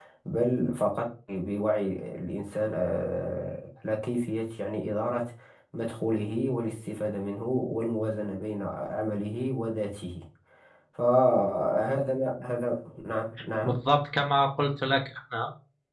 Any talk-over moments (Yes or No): No